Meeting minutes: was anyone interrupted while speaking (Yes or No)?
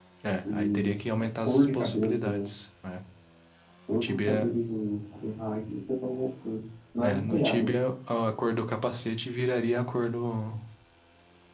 Yes